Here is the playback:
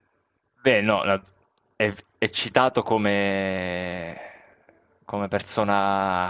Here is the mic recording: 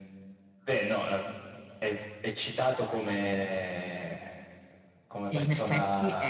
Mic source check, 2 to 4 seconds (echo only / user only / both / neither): echo only